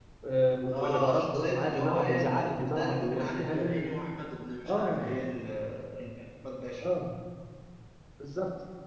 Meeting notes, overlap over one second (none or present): present